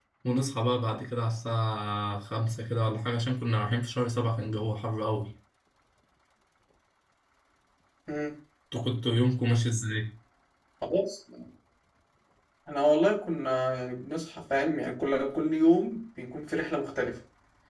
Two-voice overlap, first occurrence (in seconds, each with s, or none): none